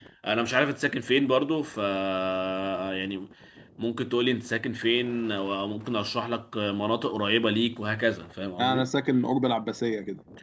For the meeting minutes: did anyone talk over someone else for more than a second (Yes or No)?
No